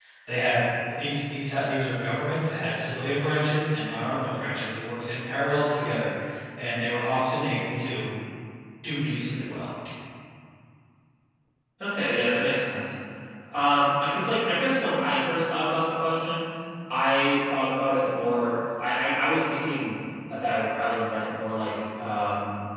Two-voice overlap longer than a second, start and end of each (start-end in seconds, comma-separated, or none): none